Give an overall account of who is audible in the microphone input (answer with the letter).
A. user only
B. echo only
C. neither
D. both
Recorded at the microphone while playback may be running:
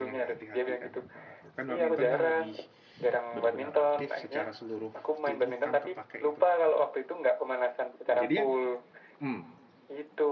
D